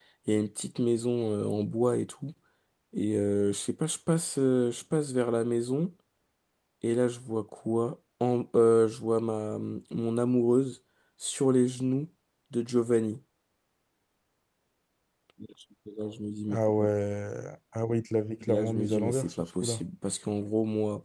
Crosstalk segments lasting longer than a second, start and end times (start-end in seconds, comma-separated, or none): 18.5-19.8